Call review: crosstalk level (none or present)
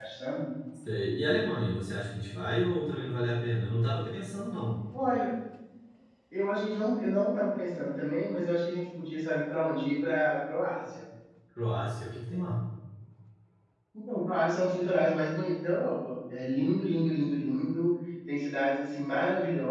none